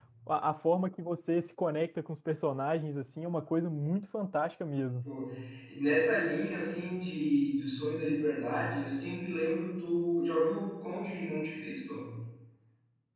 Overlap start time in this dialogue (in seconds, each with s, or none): none